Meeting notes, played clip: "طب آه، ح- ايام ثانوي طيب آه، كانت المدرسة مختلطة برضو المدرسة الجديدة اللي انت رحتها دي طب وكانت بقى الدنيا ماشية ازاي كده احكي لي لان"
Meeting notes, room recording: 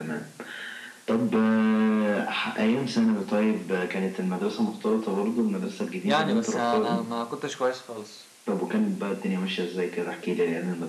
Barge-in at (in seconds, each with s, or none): 6.0 s